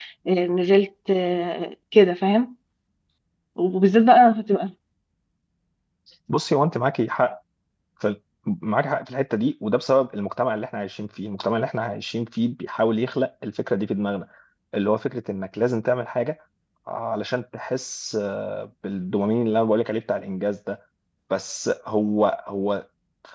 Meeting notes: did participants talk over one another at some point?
No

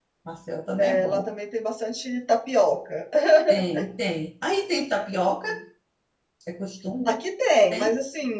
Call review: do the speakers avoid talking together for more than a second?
Yes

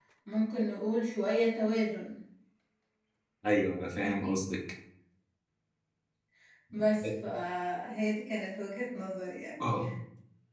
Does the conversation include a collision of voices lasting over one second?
No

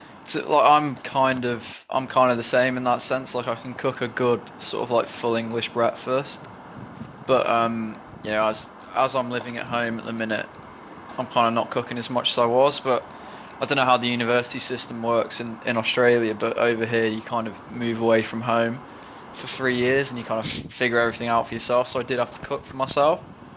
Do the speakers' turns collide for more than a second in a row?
No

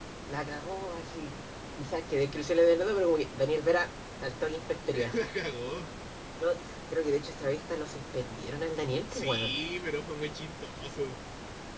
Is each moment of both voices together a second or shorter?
Yes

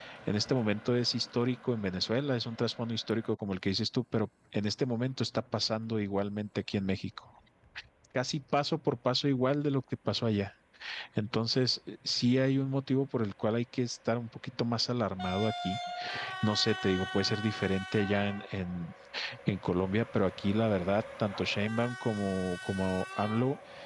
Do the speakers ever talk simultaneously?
No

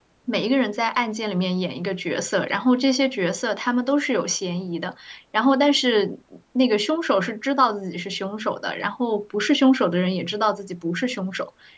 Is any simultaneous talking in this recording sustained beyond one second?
No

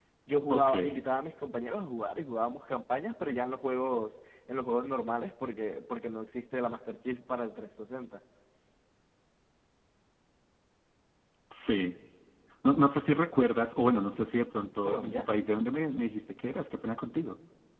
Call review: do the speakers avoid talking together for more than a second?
Yes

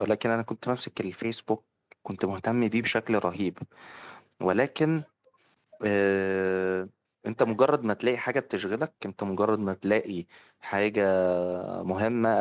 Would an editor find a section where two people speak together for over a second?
No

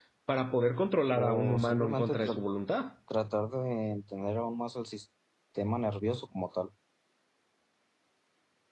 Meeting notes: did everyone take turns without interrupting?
No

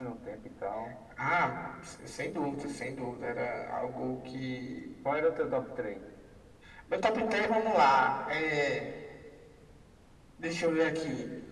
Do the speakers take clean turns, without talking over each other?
Yes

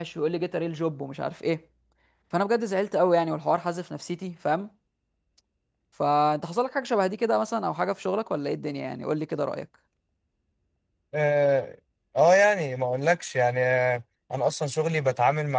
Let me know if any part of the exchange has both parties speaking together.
No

